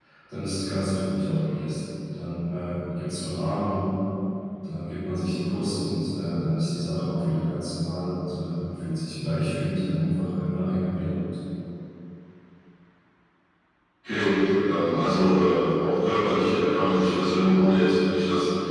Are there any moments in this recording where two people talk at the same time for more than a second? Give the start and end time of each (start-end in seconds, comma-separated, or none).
none